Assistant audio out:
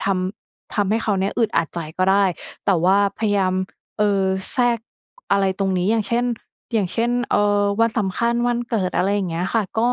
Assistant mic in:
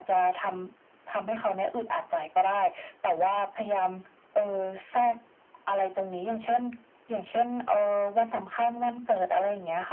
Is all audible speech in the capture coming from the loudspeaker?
Yes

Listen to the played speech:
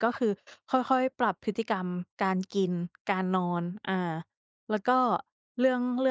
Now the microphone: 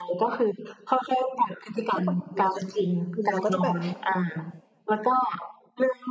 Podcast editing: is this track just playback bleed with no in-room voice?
No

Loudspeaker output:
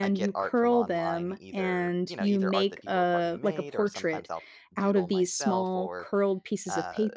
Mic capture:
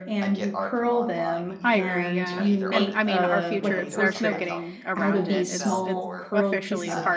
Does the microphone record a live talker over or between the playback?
Yes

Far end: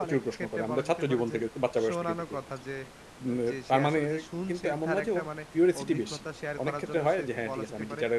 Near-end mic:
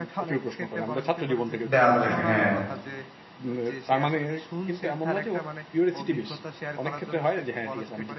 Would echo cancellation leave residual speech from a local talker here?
Yes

